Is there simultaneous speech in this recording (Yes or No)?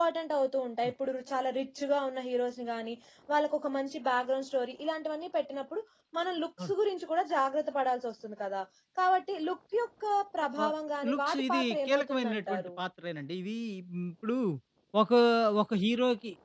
Yes